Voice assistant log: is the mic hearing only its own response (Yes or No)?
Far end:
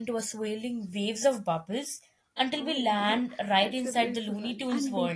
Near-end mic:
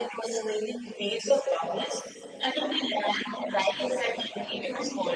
Yes